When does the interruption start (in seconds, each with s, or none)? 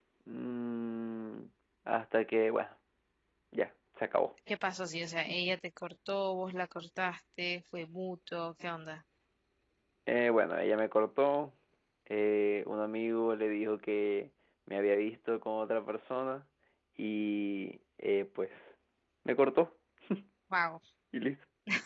none